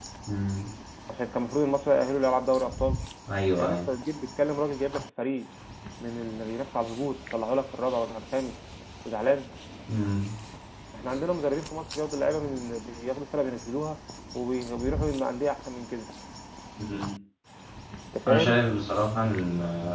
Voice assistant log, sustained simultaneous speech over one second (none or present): none